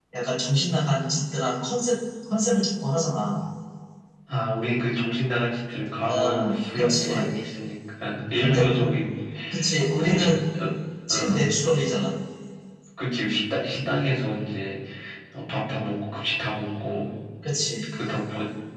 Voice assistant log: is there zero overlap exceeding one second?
No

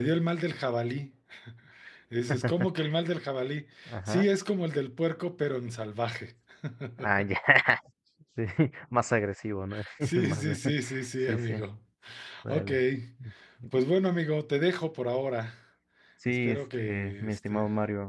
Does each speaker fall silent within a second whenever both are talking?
No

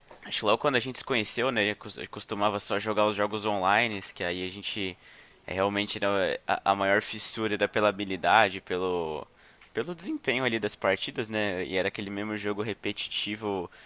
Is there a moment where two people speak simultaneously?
No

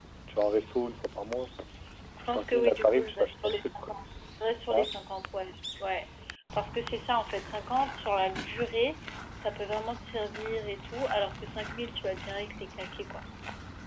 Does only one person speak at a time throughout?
No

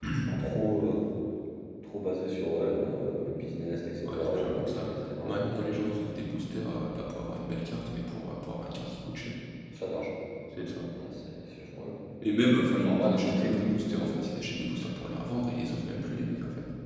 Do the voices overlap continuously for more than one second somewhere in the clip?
Yes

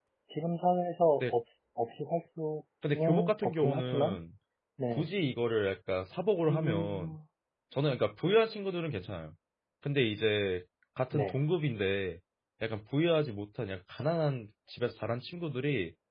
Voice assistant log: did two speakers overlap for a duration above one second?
Yes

